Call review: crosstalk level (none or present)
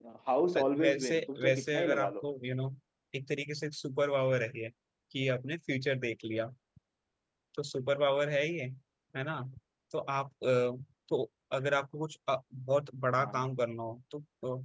present